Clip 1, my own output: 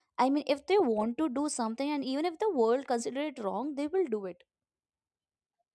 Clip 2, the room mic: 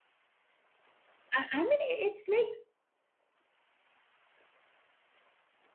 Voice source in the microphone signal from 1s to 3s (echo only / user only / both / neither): user only